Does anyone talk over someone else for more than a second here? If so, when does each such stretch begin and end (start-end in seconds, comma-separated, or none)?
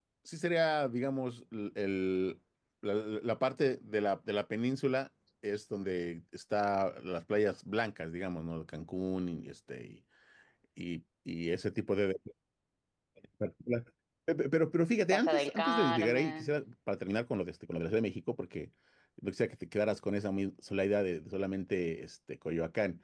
15.1-16.5